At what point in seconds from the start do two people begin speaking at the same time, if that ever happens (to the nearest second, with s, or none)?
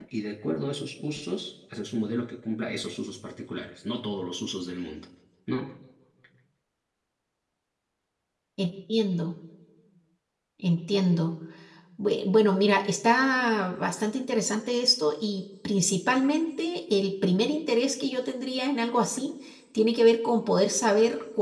none